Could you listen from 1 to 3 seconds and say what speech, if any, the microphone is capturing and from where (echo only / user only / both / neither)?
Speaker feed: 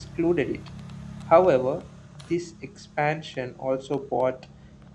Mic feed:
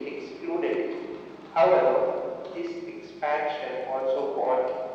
echo only